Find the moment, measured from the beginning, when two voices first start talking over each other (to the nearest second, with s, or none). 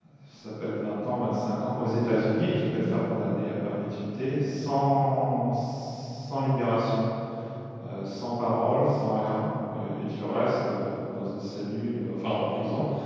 none